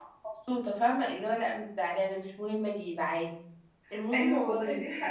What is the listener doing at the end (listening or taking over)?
taking over